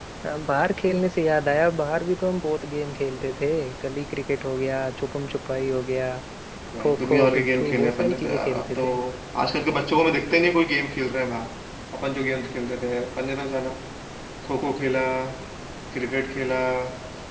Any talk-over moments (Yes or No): Yes